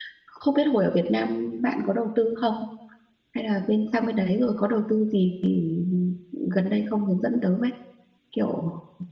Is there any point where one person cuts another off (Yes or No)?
No